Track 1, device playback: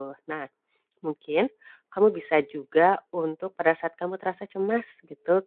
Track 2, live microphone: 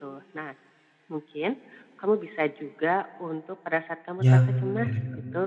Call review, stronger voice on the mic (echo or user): user